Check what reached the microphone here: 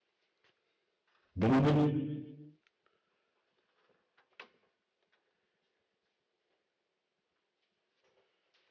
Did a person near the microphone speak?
Yes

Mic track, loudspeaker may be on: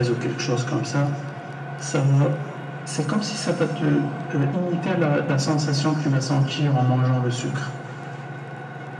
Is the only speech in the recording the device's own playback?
Yes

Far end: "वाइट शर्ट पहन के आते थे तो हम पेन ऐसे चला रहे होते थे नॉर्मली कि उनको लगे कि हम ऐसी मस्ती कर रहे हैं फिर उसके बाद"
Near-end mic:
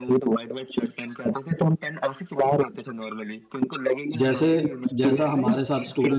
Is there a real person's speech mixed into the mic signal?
Yes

